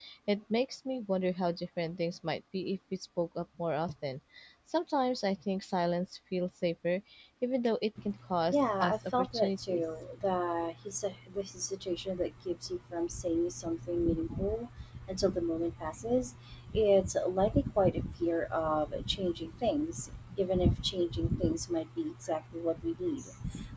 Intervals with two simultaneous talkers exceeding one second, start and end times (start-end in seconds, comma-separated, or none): 8.5-9.8